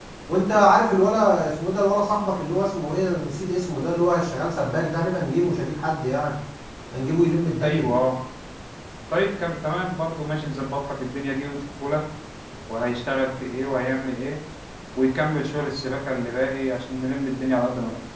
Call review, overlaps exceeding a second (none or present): none